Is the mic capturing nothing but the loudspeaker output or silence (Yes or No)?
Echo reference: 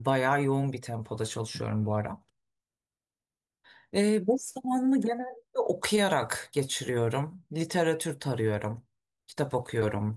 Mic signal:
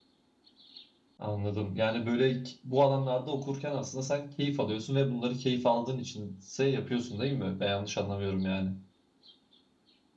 No